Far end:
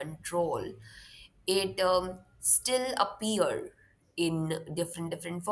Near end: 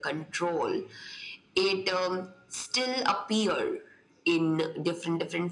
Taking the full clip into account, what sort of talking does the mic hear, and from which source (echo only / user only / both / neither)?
echo only